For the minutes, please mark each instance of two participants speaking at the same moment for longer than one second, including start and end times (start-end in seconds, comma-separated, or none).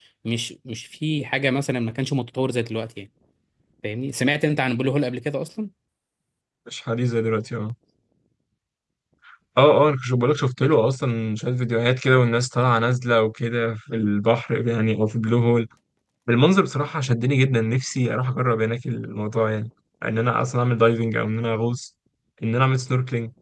none